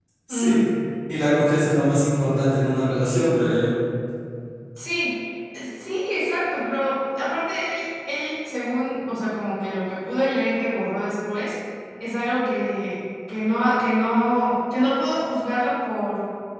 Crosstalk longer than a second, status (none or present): none